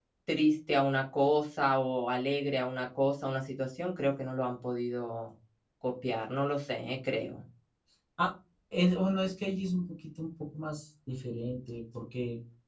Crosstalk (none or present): none